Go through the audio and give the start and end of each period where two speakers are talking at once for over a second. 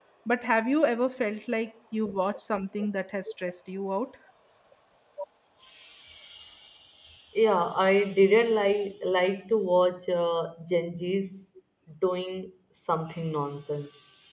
none

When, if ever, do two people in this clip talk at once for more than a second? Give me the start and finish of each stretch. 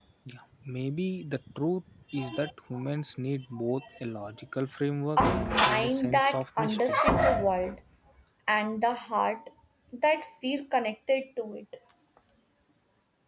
5.6-7.0

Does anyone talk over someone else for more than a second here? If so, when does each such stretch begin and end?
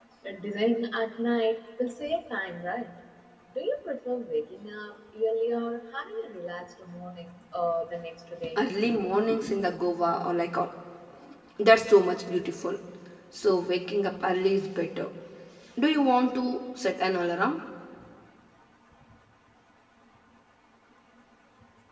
none

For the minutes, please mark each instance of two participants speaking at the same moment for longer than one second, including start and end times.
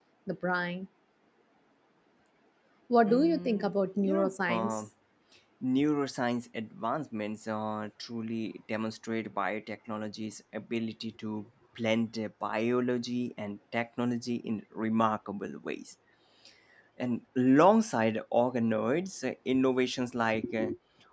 3.1-4.8

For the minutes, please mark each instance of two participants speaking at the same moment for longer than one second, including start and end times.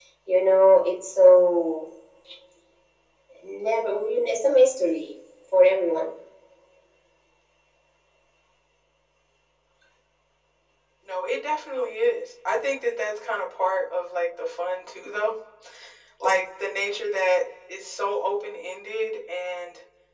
none

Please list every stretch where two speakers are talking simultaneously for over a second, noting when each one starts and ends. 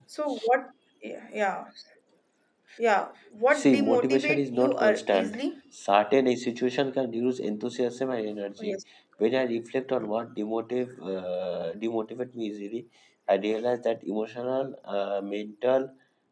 3.5-5.4

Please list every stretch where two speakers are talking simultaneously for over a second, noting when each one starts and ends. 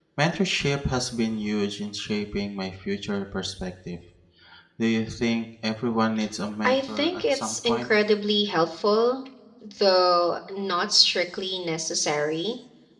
6.6-7.9

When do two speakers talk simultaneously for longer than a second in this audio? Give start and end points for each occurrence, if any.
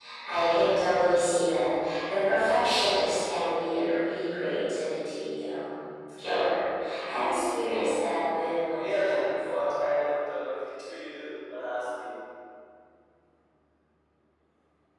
8.1-9.4

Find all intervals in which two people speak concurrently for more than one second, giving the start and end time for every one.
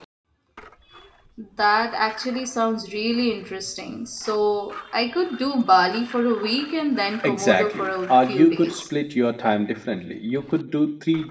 7.2-8.8

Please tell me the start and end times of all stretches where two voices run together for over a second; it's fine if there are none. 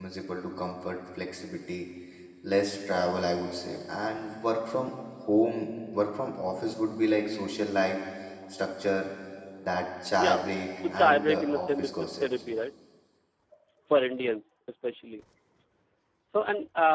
10.9-12.2

